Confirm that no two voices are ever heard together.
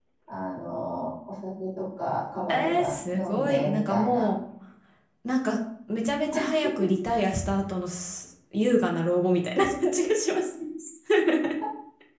No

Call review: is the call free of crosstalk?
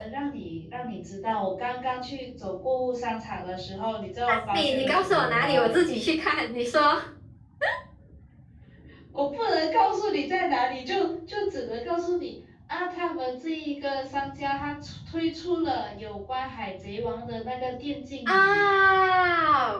No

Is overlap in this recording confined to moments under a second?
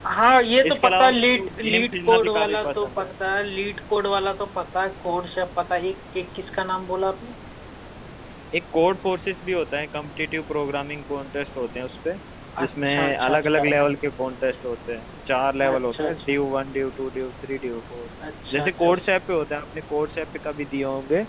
No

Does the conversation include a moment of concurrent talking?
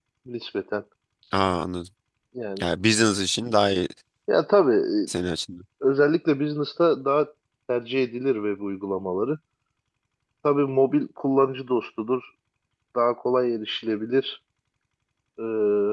No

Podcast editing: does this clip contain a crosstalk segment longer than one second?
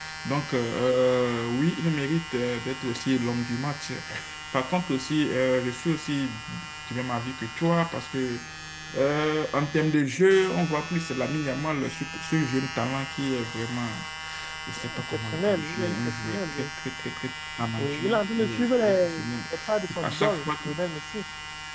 Yes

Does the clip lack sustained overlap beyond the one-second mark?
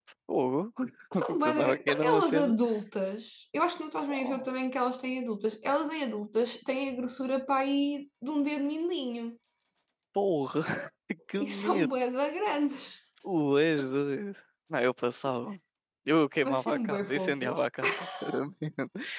No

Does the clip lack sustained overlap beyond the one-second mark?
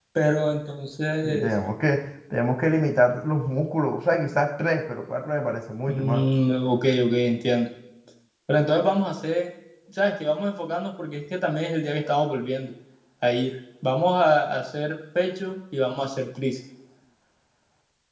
Yes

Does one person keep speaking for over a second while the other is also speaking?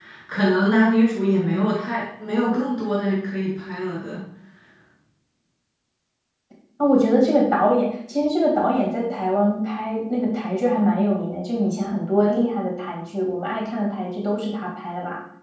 No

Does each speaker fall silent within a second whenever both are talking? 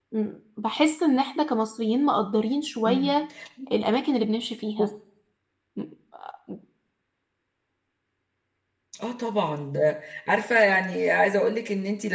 Yes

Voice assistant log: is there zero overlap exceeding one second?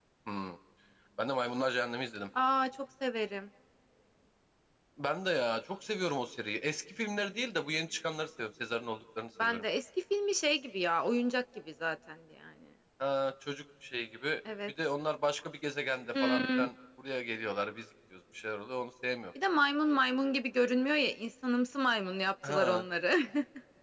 Yes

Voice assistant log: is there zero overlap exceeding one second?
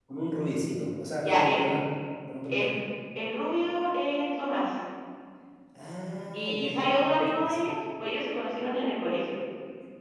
No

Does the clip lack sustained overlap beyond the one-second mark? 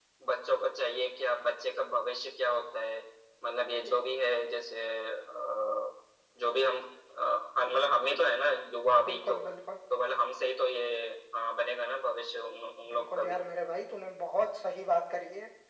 Yes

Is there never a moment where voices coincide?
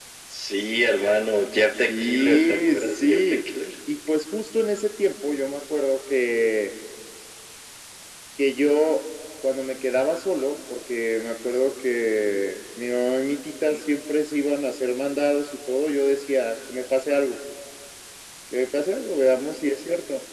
No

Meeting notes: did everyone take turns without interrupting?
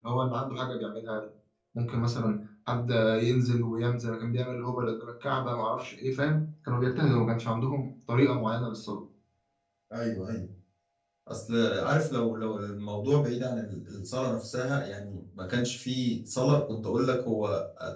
Yes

